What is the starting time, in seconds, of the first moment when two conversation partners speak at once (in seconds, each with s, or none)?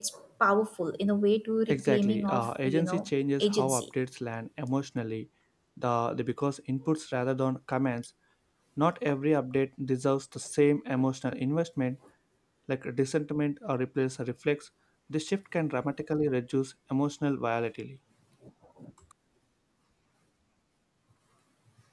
1.7 s